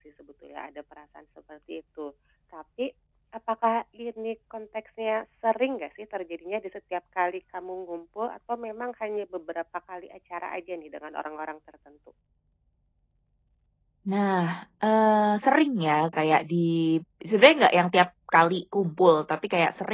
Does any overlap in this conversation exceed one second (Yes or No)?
No